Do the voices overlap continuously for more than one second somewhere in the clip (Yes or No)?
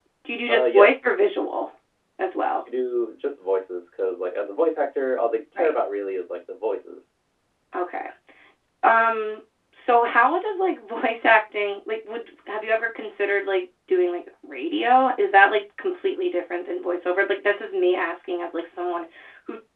No